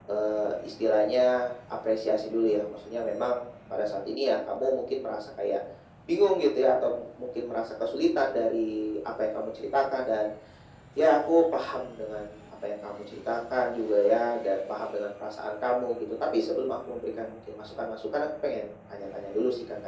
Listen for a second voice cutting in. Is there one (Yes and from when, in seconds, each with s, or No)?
No